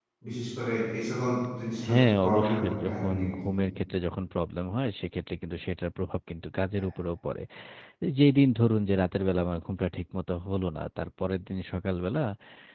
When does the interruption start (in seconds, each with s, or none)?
1.8 s